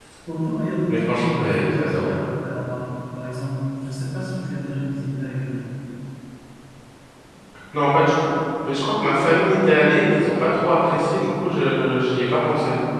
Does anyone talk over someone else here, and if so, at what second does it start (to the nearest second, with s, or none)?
1 s